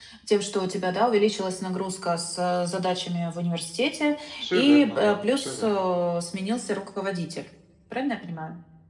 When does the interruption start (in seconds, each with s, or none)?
4.4 s